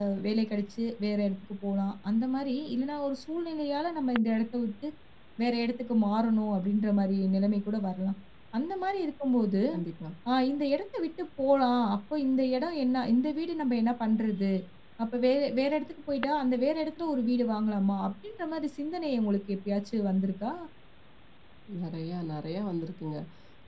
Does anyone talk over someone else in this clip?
No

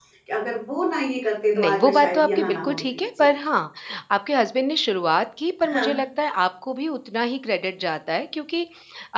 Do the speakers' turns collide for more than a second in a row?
Yes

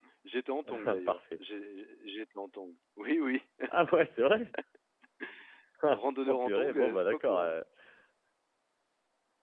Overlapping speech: Yes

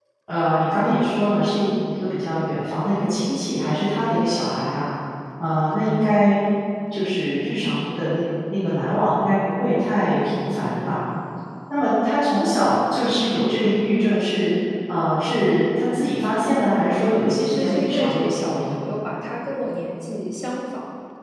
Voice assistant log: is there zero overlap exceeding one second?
No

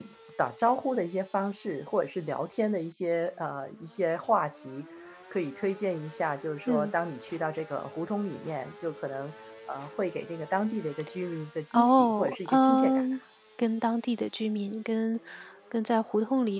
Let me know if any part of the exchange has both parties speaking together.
Yes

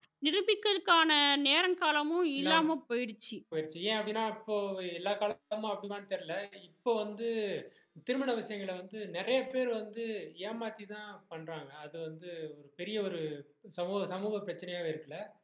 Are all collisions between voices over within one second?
Yes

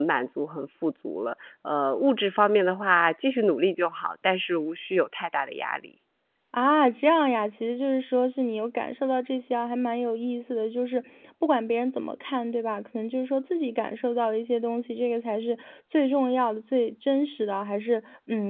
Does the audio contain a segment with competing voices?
No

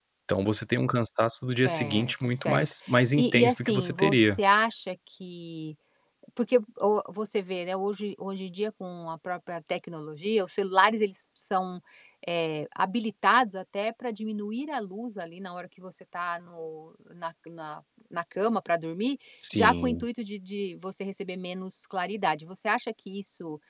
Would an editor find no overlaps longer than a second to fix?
No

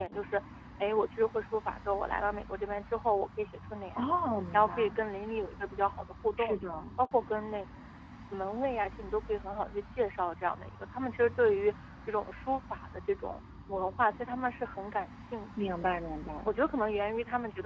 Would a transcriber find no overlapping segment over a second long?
Yes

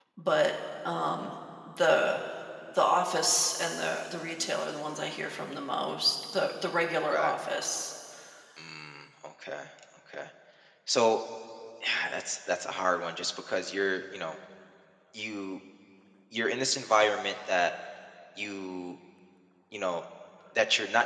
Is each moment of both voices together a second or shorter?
Yes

